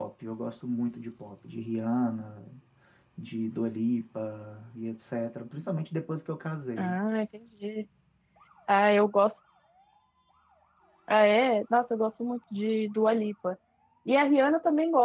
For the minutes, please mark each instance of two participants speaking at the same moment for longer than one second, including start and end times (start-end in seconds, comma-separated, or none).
none